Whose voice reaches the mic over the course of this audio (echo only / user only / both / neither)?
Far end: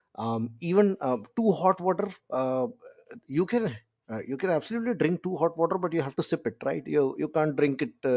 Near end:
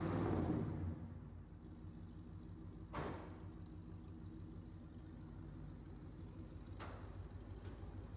neither